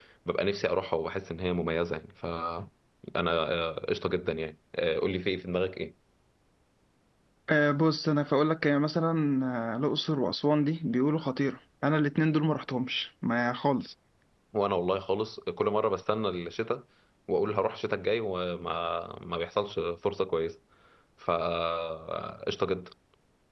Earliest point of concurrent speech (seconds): none

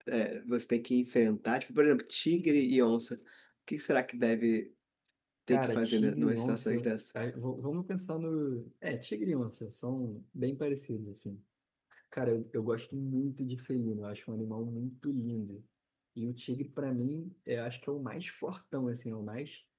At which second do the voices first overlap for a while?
5.5 s

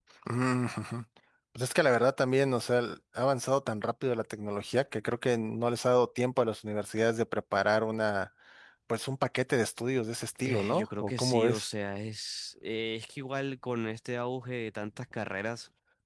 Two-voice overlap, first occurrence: 10.4 s

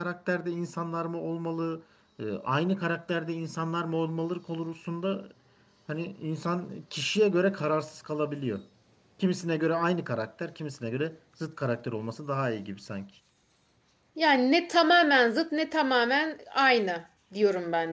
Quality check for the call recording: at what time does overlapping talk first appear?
none

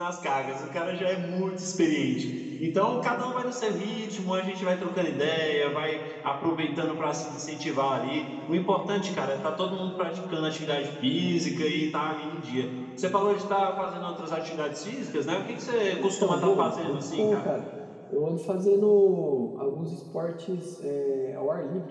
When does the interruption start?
16.0 s

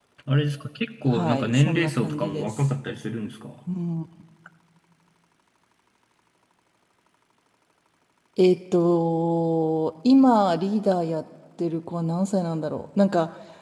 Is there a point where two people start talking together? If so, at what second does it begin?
1.1 s

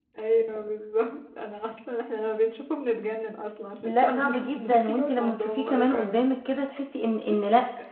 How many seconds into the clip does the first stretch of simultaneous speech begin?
3.9 s

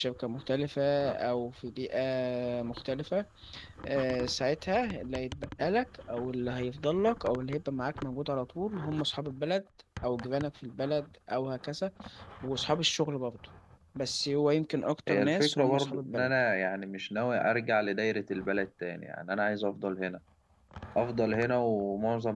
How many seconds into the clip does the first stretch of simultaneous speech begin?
15.1 s

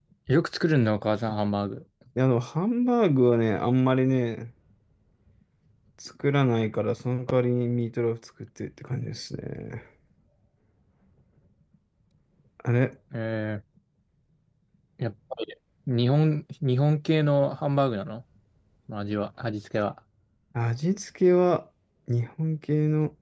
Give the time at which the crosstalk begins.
none

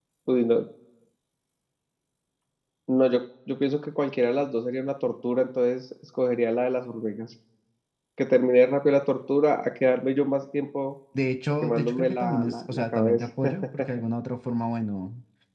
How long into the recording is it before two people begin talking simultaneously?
11.6 s

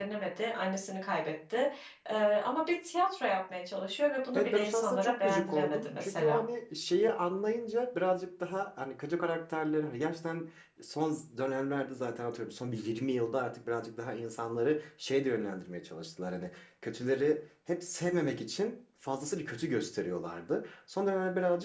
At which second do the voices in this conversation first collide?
4.3 s

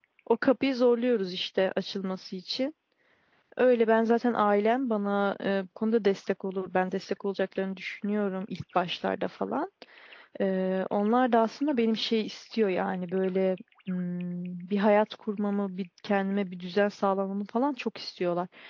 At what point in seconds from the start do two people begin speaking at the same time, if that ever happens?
none

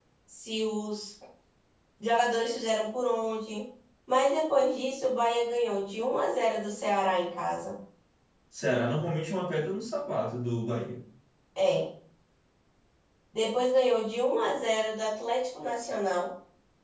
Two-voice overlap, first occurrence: none

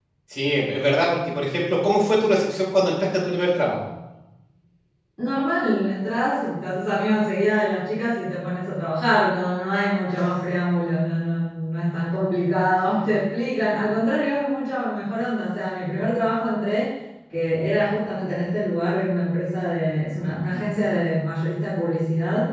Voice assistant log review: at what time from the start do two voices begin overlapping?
none

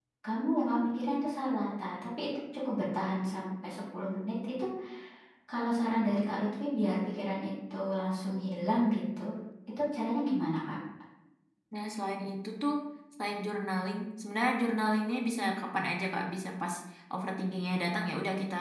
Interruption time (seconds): none

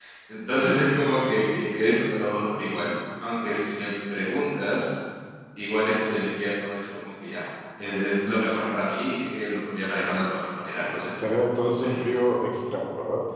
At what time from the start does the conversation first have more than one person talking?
10.9 s

